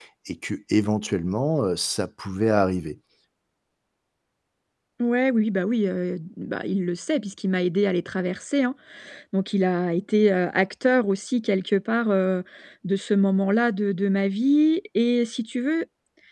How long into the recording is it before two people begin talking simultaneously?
none

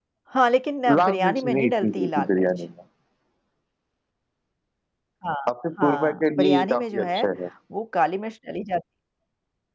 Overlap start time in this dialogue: 0.9 s

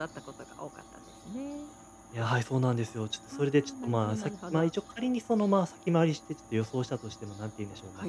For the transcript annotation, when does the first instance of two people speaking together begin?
3.3 s

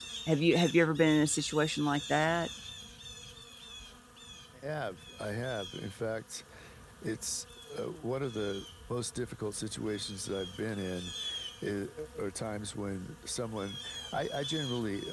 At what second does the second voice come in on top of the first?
none

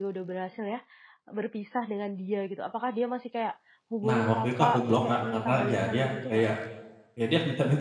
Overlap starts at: 4.0 s

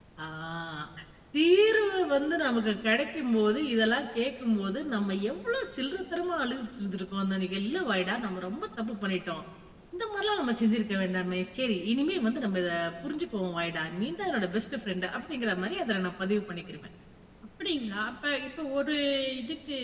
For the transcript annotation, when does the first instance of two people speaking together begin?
none

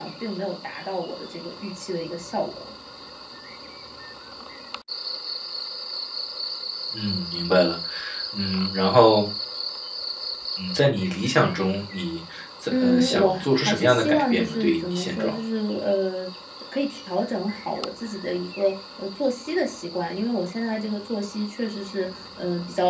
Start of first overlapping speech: 12.7 s

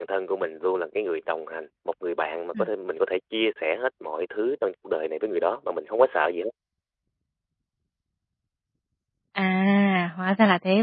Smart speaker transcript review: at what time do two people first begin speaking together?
none

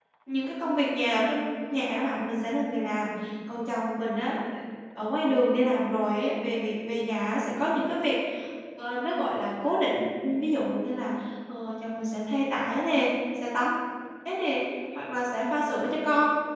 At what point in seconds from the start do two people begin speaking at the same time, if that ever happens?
none

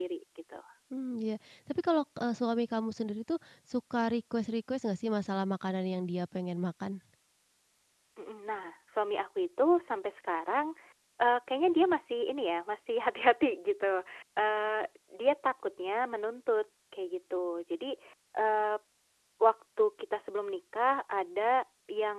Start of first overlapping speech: none

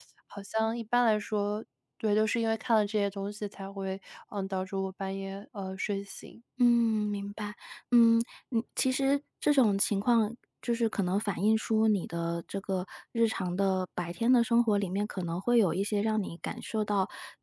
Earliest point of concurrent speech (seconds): none

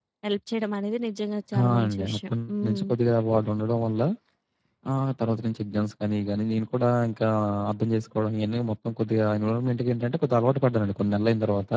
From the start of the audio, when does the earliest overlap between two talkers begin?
1.5 s

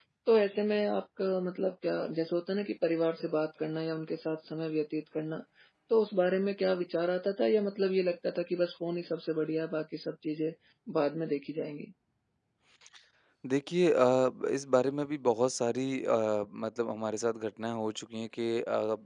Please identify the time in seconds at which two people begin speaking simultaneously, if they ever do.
none

